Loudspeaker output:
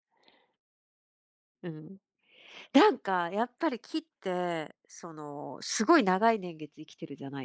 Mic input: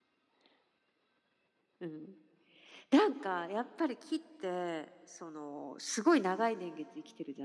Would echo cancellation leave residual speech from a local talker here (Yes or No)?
No